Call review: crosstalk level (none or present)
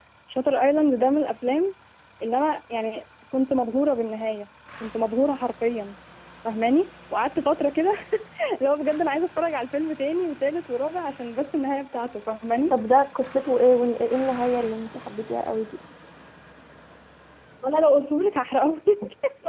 none